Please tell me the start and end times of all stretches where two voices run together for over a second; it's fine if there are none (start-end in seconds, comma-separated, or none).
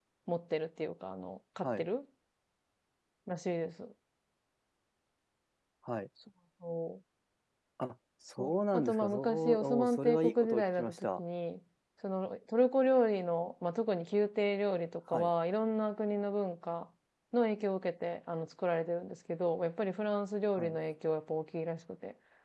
8.4-11.2